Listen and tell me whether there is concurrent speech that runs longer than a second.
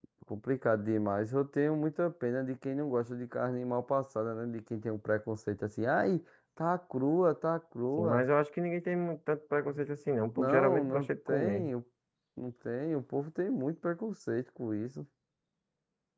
Yes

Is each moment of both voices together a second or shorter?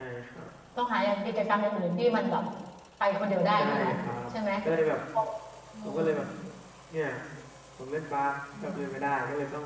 Yes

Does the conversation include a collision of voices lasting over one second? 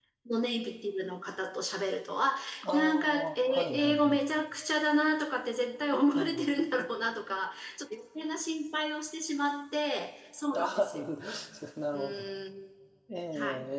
Yes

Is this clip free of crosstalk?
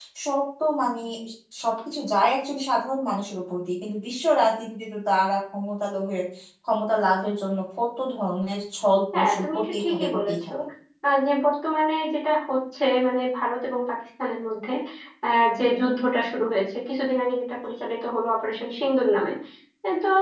No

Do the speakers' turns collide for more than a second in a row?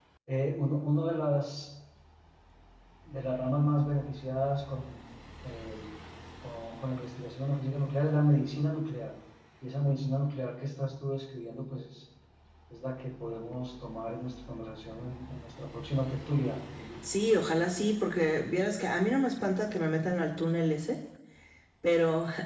No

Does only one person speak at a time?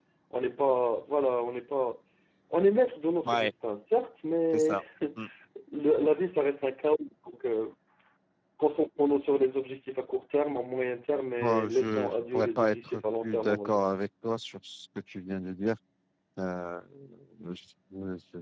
No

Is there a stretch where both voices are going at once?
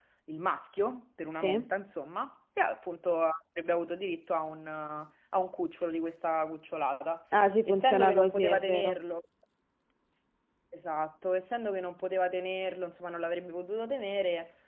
Yes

